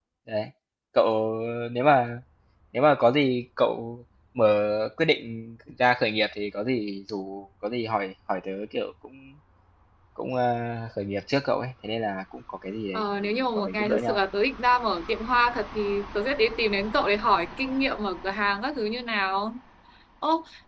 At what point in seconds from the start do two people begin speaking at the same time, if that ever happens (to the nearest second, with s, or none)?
13 s